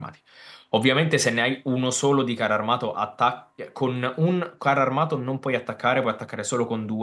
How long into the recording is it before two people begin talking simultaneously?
none

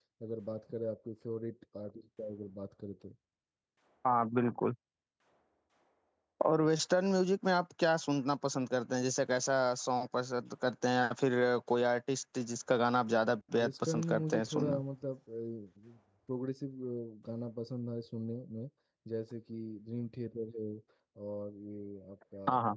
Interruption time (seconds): 13.5 s

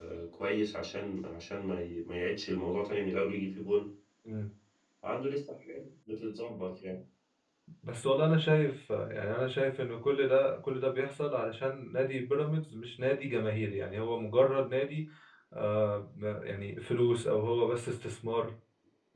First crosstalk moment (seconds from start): none

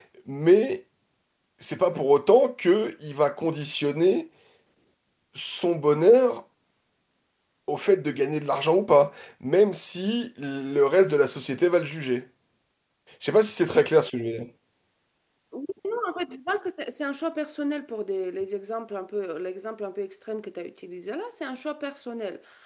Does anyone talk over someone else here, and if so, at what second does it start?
none

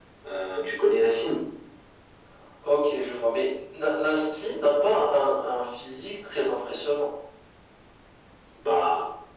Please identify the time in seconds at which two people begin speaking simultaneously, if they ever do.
none

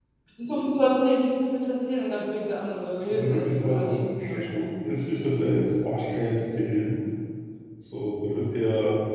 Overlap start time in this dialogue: 3.0 s

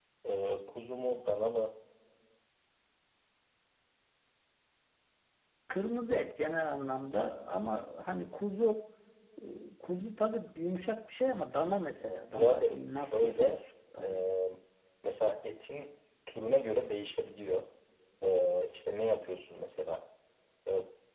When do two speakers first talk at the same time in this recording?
12.0 s

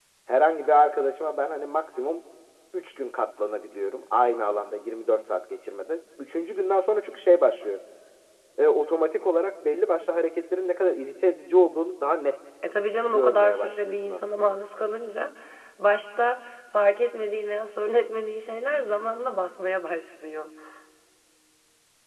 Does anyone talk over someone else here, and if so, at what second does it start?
13.1 s

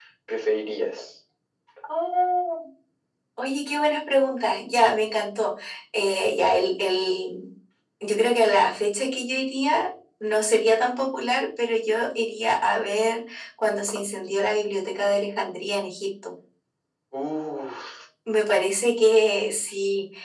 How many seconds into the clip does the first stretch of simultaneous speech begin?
none

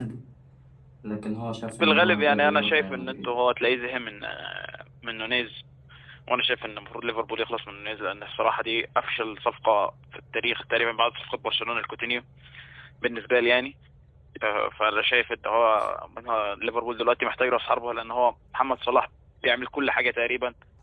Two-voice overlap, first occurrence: 1.8 s

